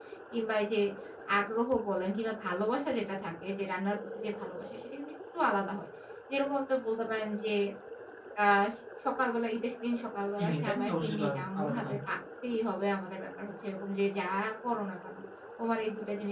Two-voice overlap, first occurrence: 10 s

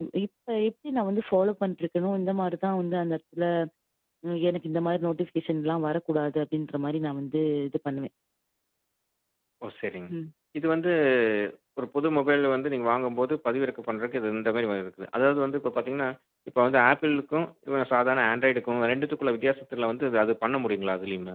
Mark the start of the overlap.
none

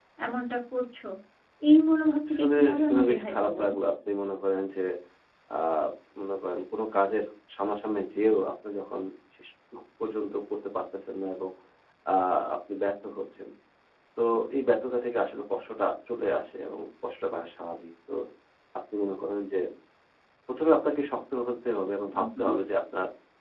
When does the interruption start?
2 s

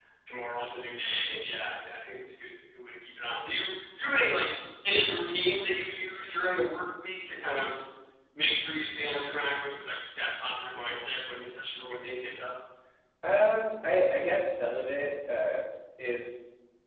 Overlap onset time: none

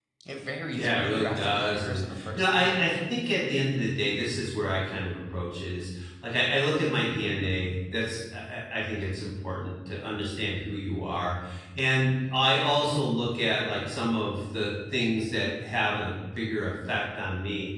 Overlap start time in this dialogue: 1 s

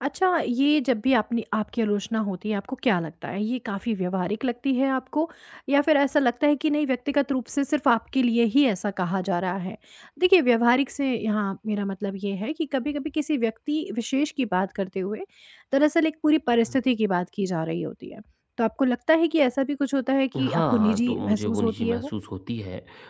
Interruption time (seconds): 20 s

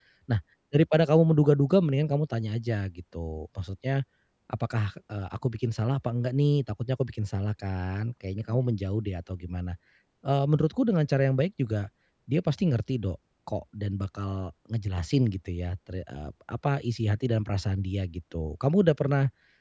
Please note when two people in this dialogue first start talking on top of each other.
none

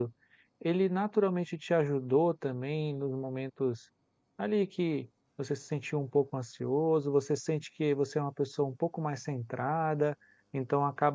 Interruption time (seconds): none

